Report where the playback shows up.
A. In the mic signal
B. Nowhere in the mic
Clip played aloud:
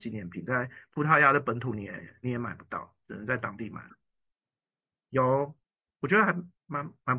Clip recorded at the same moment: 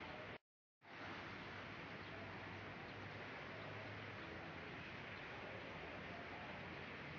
B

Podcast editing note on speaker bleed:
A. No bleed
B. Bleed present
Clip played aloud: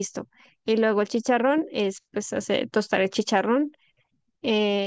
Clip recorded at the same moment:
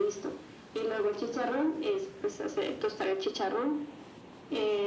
B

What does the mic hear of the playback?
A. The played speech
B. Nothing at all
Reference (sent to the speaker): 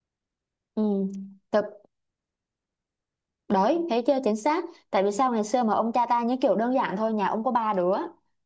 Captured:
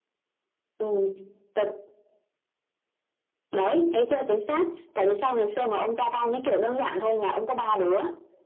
A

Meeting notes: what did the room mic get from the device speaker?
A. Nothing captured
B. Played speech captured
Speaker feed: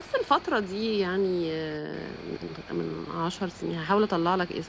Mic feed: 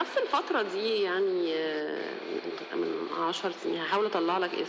B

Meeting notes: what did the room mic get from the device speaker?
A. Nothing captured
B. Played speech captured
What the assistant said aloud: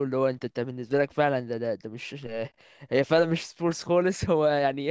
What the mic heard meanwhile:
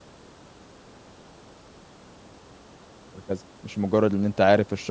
A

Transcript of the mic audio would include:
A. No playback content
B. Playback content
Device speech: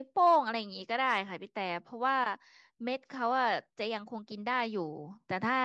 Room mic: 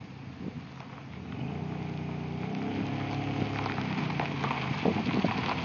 A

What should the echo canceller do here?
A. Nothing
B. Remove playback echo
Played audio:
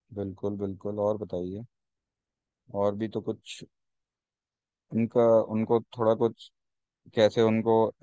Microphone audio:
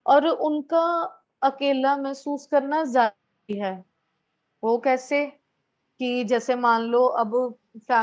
A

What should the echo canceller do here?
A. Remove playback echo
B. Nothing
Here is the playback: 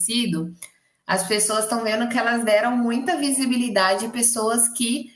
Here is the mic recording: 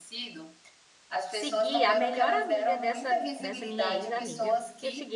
A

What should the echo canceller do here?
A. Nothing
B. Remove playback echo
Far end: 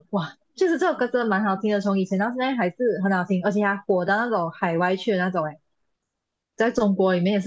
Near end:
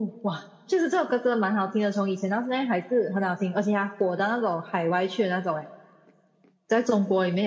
B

